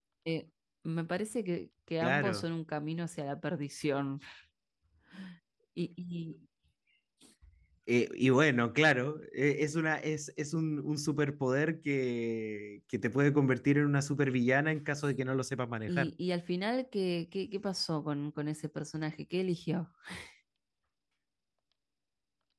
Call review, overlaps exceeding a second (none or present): none